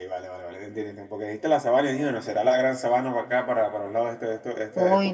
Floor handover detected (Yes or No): Yes